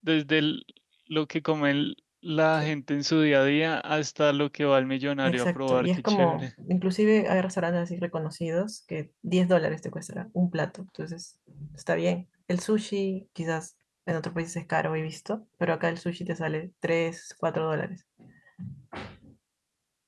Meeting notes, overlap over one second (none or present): present